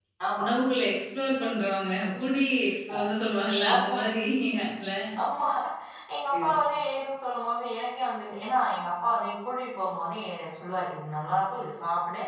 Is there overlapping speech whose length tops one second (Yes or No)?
No